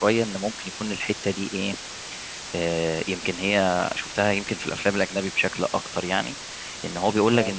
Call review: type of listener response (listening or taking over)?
listening